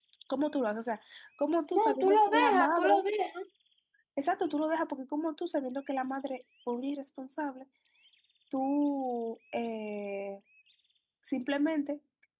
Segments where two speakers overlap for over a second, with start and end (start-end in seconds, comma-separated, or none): 1.7-3.0